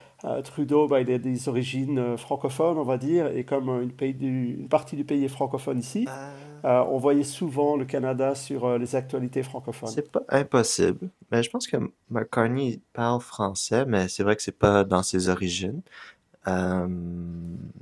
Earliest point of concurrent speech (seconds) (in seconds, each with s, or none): none